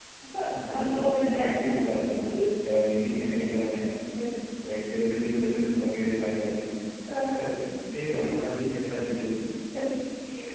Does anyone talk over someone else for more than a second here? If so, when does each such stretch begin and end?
0.5-1.8

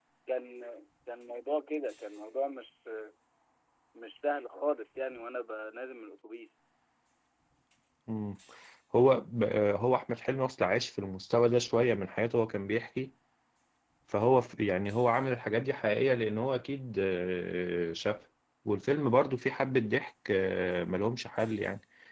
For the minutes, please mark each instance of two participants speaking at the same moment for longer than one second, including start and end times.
none

